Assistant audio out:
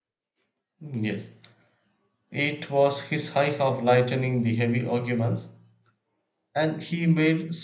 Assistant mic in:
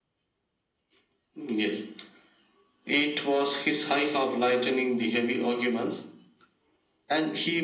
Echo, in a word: present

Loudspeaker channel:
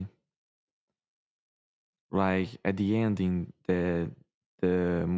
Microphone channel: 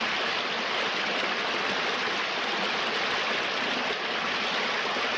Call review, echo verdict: none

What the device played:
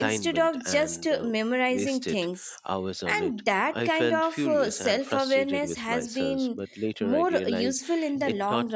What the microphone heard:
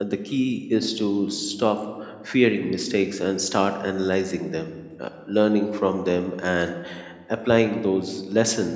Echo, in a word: none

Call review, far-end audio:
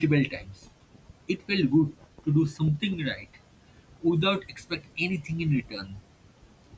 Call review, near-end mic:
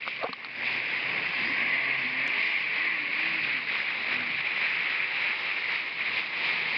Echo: none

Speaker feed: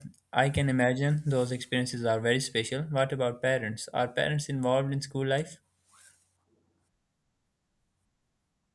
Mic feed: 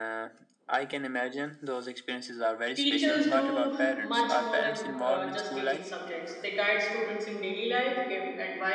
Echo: present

